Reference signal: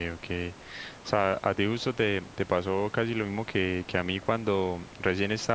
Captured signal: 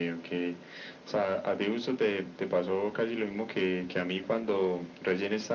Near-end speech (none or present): none